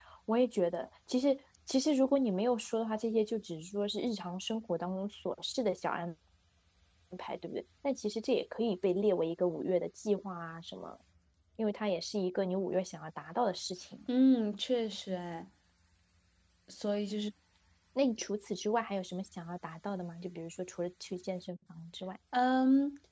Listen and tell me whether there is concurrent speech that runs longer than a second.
No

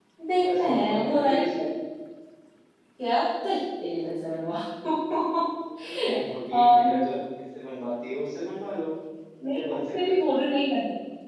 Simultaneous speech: Yes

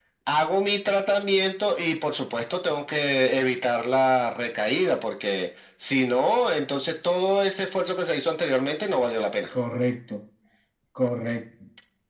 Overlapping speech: No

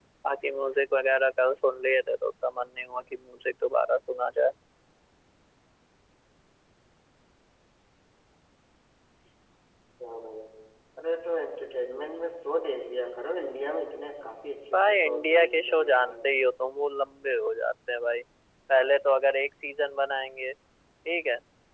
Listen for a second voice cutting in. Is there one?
Yes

